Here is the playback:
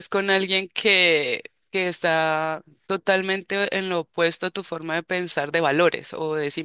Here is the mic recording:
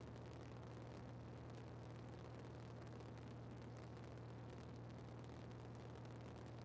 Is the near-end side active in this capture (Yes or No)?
No